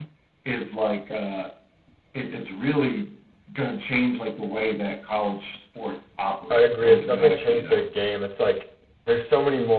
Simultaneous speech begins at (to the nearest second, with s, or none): 7 s